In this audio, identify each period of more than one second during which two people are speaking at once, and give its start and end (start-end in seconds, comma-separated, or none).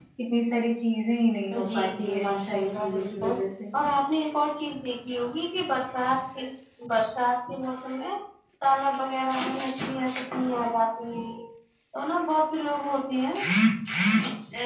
1.6-3.3